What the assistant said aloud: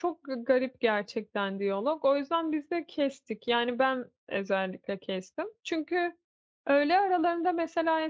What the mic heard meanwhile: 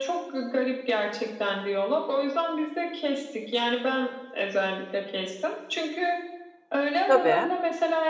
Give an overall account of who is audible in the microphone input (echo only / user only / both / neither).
both